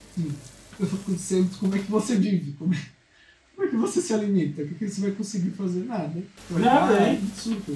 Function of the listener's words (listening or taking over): listening